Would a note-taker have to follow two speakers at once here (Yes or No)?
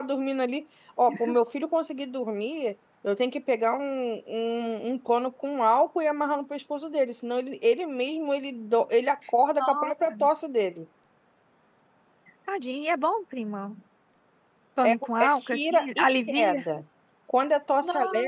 Yes